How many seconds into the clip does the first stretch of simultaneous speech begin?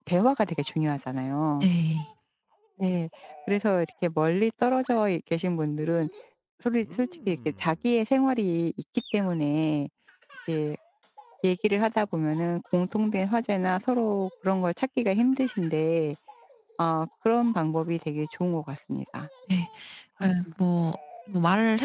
none

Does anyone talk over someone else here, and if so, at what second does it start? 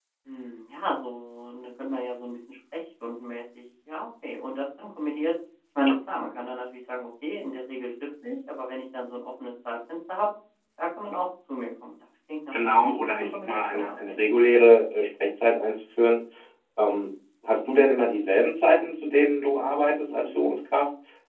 12.5 s

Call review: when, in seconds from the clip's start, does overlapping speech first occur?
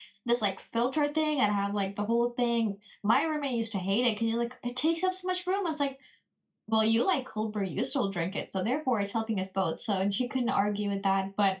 none

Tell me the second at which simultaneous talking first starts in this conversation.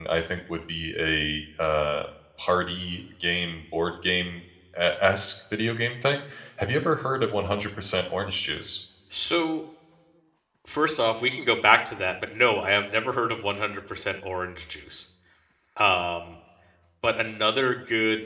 none

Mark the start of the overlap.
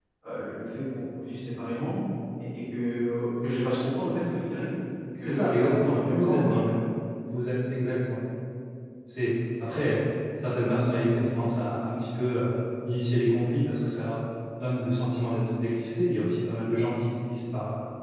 5.2 s

